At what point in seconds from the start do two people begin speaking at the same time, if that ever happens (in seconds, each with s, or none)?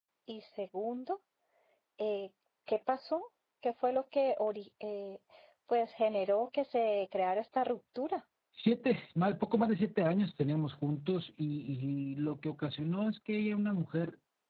none